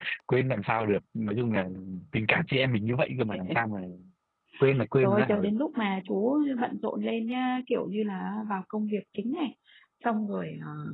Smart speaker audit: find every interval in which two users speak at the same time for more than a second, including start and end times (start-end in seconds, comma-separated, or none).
none